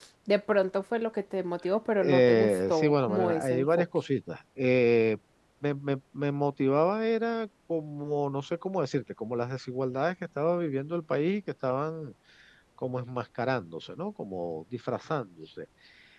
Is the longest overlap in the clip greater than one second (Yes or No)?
Yes